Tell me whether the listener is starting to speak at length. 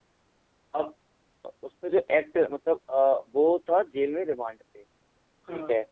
No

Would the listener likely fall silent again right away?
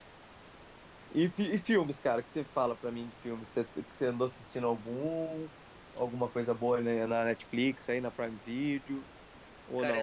No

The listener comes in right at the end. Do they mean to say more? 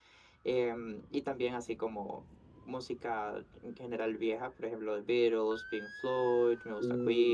No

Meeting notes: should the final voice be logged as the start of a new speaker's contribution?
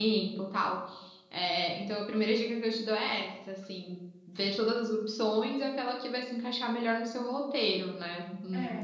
Yes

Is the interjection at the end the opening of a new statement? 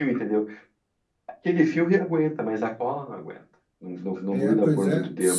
Yes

